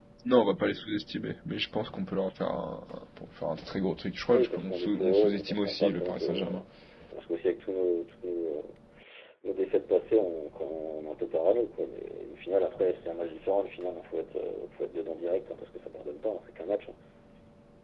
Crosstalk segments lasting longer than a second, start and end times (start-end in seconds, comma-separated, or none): 4.3-6.5